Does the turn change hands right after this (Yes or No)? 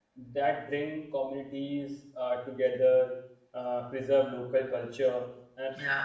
No